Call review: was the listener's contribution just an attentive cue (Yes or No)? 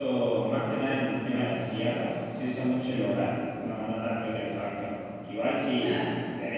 Yes